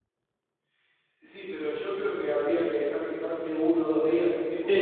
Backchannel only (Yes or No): No